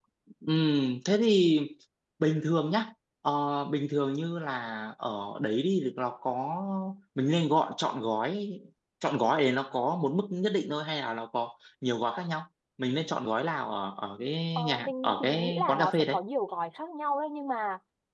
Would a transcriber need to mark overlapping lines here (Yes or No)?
Yes